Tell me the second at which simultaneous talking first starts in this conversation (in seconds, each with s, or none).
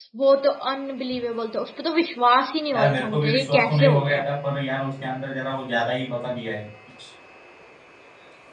2.7 s